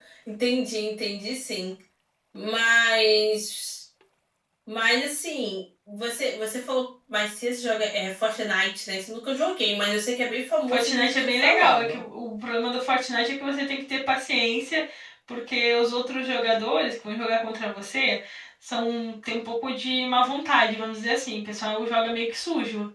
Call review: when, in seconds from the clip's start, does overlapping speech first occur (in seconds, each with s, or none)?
10.7 s